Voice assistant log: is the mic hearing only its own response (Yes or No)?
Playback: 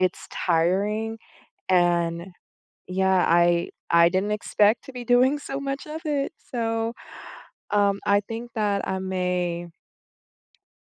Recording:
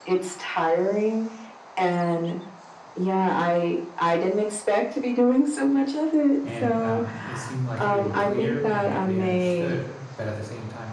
No